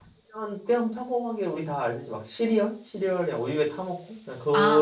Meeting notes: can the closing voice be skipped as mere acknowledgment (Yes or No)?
No